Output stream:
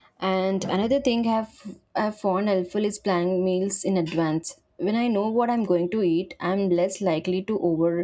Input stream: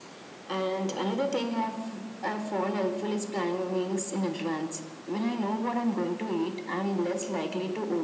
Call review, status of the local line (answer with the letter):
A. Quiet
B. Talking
A